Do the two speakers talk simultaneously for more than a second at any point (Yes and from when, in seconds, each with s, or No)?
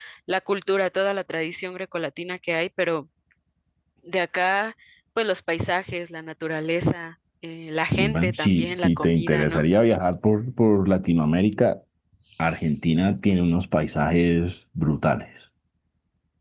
Yes, from 8.0 s